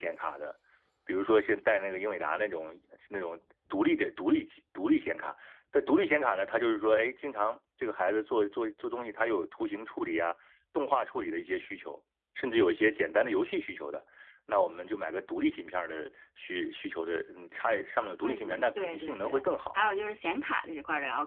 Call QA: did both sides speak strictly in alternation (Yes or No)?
No